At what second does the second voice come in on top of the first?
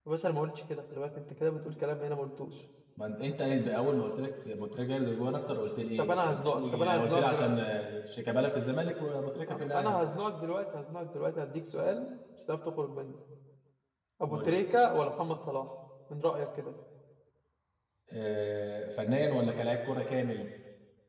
6.0 s

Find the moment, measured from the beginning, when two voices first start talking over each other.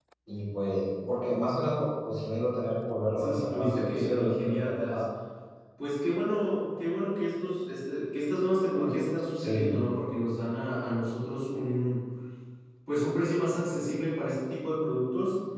3.2 s

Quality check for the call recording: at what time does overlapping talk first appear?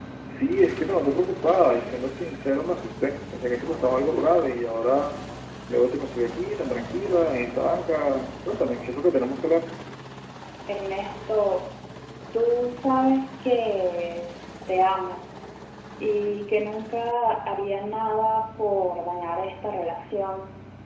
none

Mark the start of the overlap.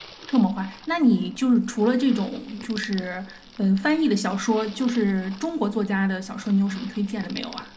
none

